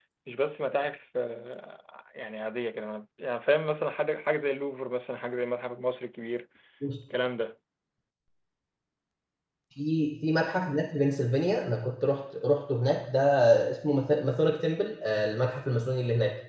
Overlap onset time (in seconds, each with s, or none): none